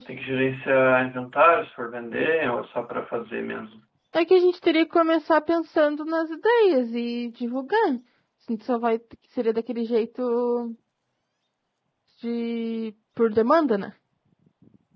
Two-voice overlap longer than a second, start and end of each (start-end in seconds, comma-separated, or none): none